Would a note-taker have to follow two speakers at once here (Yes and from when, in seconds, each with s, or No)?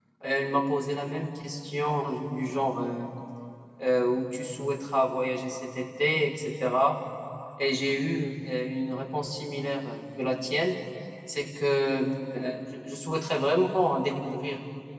No